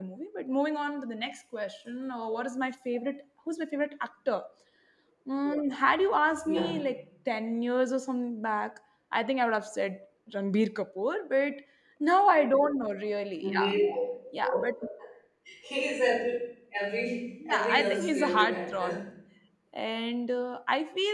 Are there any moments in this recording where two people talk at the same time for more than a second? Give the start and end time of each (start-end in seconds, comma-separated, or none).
17.5-19.0